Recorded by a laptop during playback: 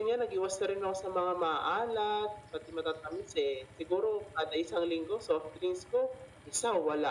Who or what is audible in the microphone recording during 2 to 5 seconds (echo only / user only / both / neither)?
echo only